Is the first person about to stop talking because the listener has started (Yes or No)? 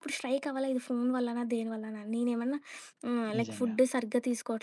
No